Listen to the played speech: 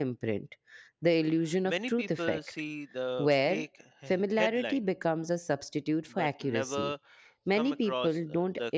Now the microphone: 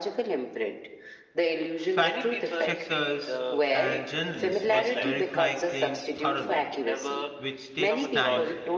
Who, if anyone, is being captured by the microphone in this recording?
both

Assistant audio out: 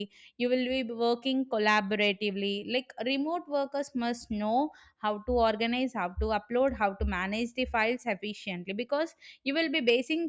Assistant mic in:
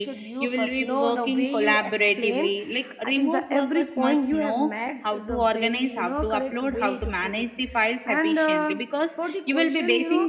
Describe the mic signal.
both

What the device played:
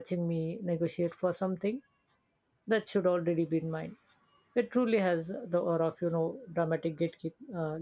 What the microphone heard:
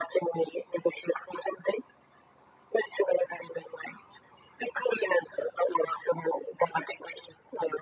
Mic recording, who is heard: echo only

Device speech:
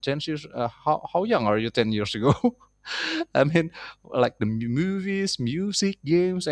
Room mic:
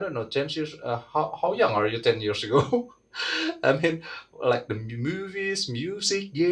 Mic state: echo only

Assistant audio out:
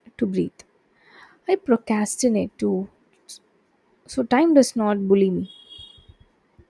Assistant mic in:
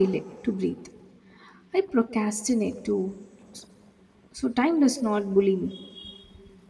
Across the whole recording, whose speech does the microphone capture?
echo only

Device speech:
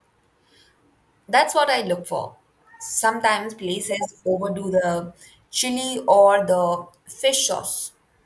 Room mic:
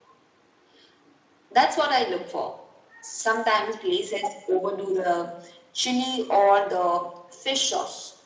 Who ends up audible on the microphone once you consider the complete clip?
echo only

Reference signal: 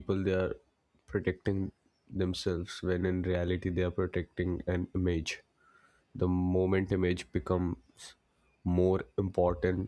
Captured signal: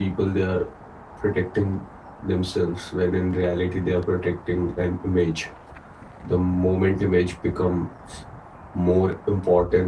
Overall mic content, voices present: echo only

